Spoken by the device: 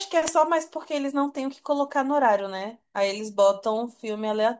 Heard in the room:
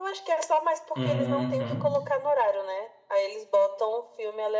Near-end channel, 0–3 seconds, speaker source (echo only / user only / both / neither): both